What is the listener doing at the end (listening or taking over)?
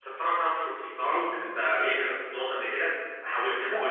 taking over